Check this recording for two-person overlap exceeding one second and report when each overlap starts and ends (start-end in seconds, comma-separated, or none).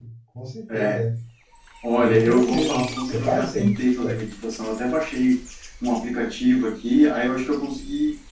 2.0-3.7